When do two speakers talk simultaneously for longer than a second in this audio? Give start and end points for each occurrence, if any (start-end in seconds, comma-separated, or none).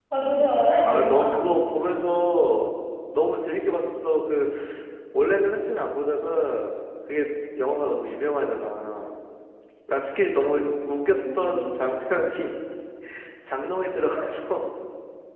11.1-12.3